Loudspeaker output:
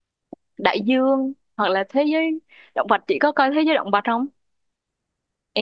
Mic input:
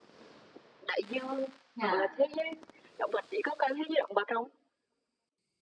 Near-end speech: present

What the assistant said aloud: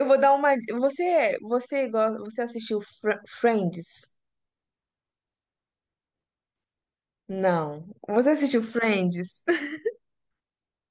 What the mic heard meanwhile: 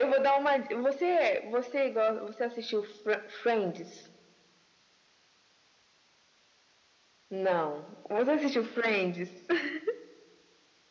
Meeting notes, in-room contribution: none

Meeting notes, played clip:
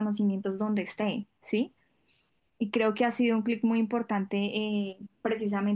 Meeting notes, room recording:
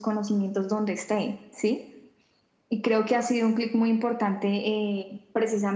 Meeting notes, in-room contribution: none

